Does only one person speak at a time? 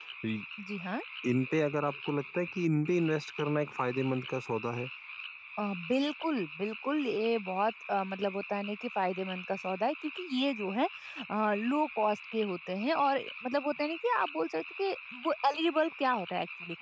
Yes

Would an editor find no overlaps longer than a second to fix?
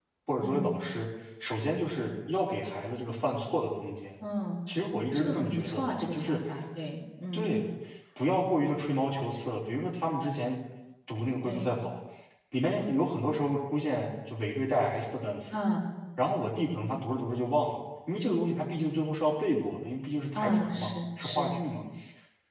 No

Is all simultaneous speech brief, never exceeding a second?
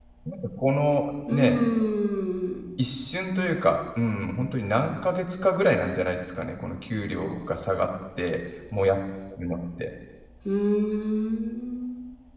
Yes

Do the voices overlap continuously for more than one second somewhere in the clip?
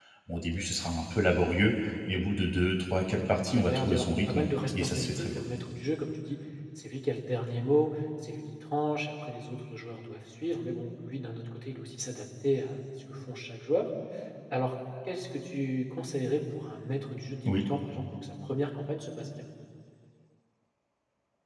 Yes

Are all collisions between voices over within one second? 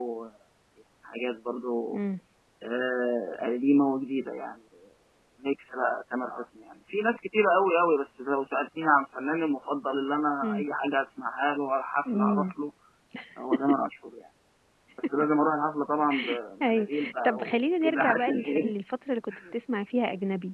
No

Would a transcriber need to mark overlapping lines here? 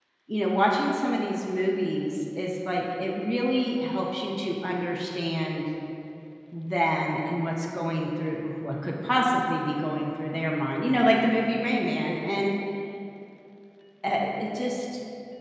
No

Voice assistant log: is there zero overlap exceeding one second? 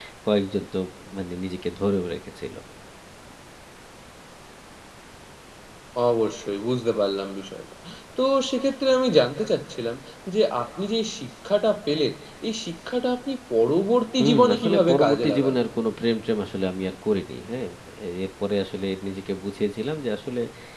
No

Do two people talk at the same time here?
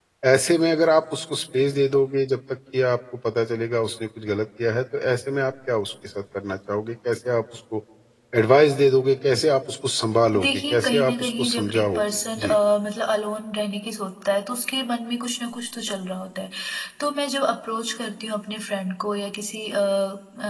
Yes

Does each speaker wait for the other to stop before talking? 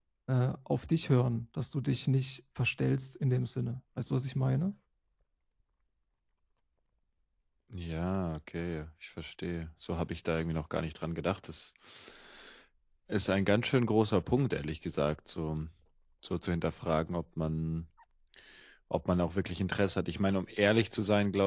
Yes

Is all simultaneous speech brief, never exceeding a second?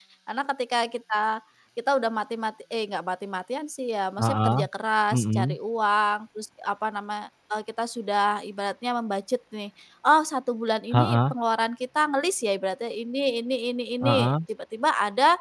Yes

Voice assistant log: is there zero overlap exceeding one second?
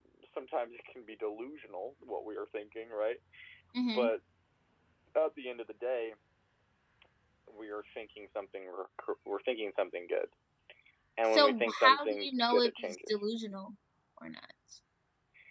No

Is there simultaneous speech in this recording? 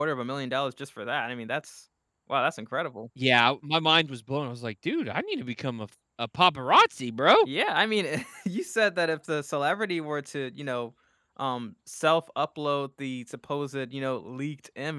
No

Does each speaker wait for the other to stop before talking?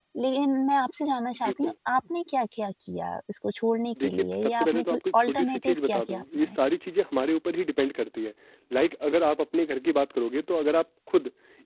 No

